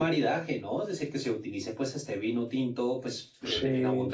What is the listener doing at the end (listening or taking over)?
listening